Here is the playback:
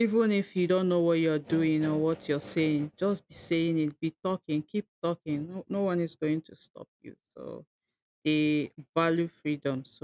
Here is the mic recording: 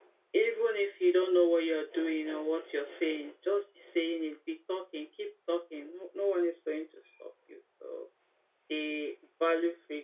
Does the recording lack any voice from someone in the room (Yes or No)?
Yes